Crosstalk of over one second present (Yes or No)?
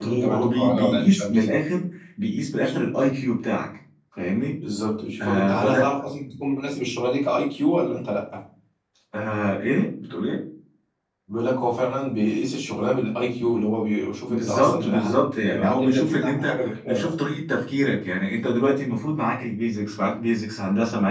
Yes